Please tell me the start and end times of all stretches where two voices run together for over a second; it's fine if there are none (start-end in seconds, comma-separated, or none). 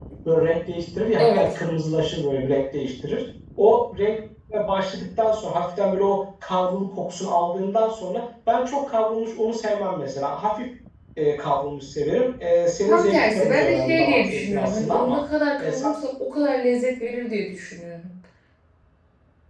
12.9-15.2